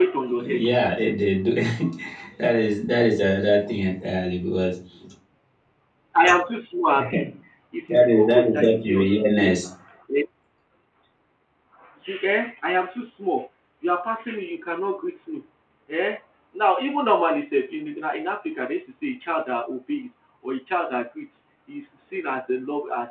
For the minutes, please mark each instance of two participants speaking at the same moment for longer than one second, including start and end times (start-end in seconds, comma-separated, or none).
7.9-9.6